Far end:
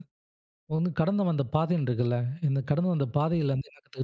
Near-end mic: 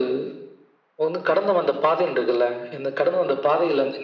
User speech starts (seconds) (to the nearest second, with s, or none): none